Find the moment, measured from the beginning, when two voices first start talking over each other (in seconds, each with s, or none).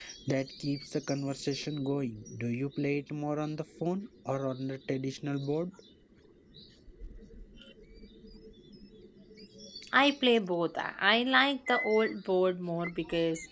none